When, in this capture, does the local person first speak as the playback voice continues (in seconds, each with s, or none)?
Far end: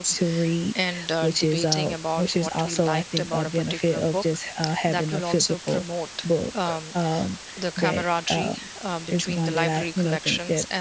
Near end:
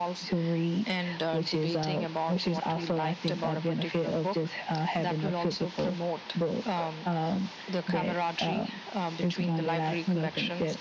none